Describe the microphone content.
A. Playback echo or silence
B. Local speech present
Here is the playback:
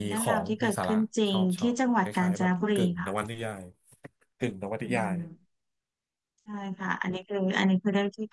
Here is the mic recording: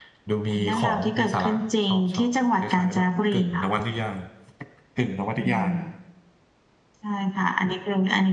A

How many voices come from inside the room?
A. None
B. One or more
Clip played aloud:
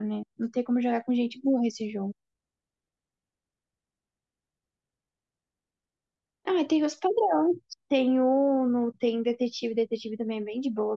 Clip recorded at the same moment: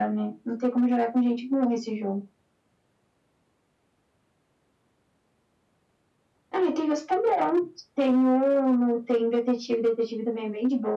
A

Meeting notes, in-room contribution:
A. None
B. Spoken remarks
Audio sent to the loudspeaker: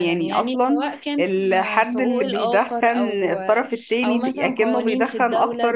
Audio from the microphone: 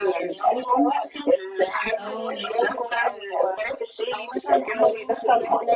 B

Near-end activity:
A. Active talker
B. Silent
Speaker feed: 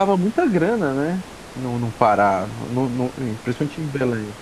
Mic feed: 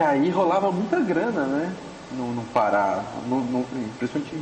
B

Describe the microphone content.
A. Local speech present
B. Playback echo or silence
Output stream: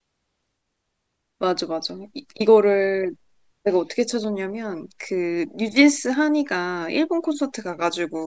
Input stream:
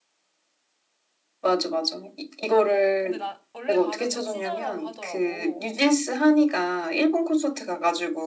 A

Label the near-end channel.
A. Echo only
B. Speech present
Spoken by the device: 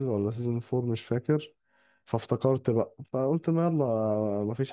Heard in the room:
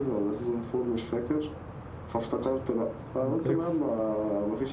B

